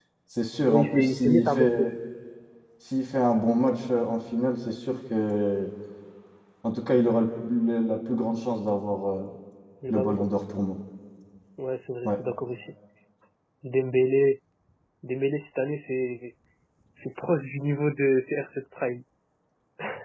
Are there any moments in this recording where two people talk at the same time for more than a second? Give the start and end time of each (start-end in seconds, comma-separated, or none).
0.6-1.9